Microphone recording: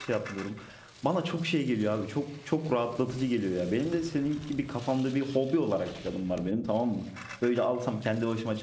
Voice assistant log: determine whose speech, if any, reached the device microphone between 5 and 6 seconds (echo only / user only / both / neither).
user only